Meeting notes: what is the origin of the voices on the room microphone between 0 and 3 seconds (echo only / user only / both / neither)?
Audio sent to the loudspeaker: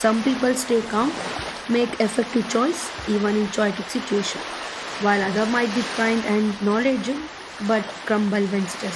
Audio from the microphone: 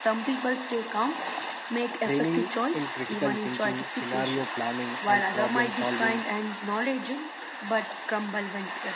both